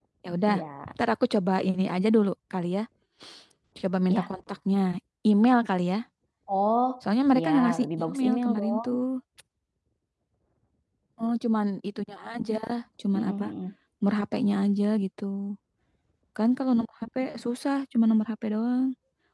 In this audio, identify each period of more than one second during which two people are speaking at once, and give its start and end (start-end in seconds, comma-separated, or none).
7.4-8.8